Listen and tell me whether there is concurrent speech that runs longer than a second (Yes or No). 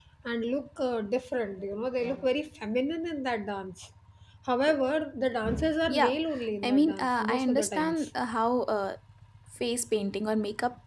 Yes